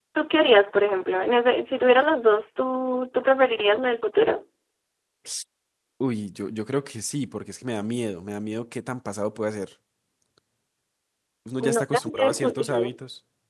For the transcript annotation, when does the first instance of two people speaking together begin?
12 s

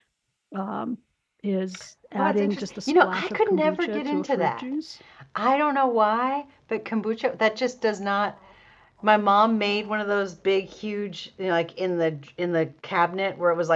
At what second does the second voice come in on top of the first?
2 s

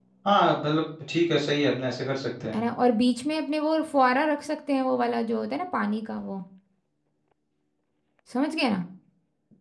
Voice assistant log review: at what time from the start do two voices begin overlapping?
none

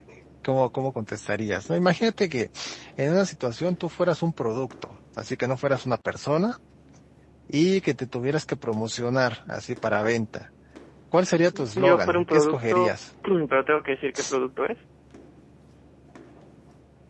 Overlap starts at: 12 s

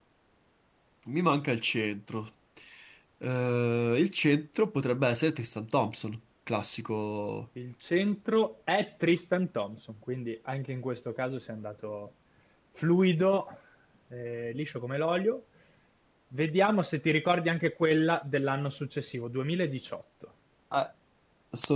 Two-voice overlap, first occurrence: none

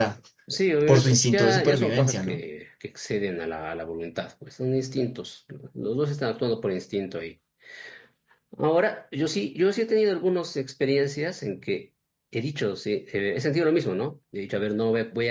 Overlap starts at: 1 s

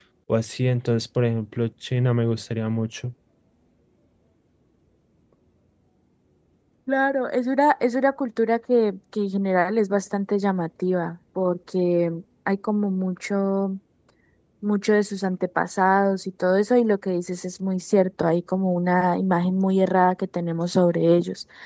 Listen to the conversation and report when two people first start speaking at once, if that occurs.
none

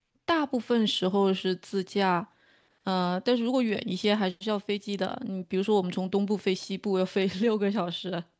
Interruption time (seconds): none

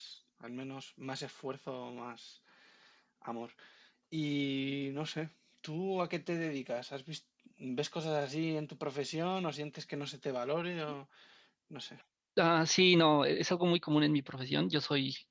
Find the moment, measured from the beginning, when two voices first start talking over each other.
none

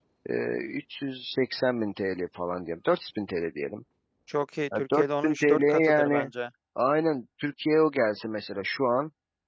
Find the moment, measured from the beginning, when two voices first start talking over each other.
5 s

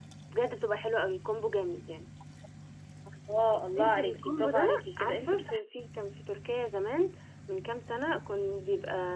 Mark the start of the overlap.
4 s

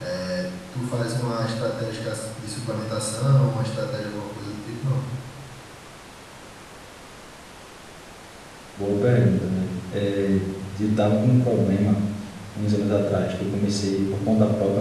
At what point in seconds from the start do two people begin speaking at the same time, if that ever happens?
none

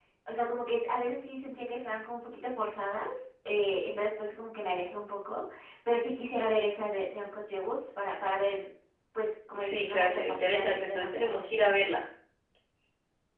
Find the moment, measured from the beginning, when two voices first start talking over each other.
10 s

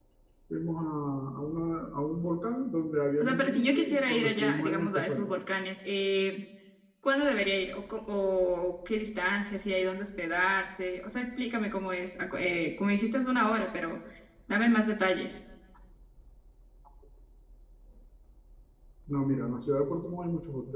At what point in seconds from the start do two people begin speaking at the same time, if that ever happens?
3 s

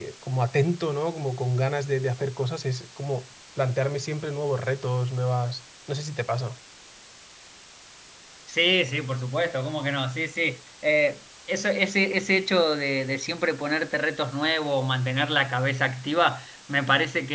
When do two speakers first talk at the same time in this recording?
none

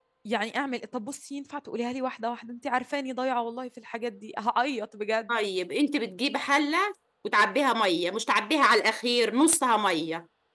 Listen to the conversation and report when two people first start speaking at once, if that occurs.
none

